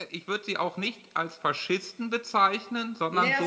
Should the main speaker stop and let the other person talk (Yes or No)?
Yes